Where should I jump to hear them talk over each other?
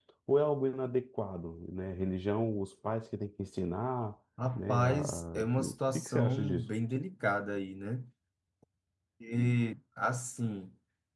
5 s

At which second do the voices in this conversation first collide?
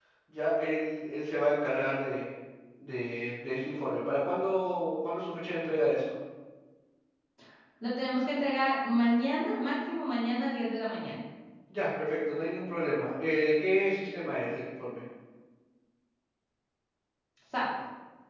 none

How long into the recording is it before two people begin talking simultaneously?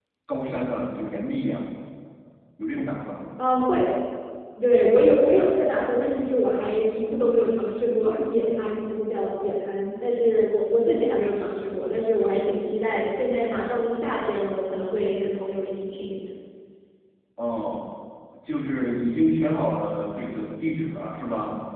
none

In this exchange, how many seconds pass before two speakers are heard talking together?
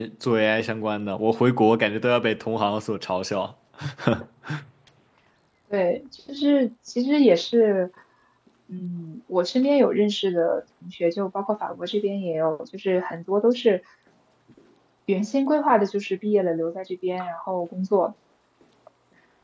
none

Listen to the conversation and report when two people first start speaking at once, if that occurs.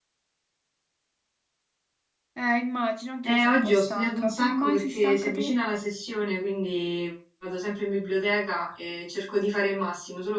3 s

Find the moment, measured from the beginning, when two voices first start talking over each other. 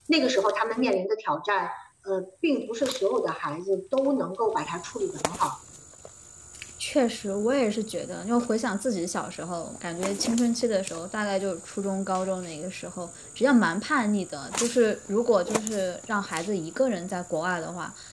none

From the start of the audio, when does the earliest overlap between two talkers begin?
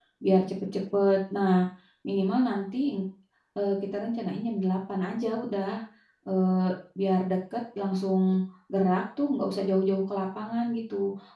none

